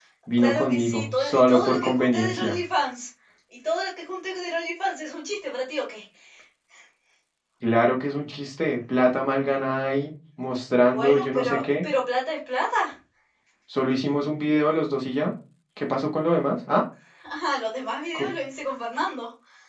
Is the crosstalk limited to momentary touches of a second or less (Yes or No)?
No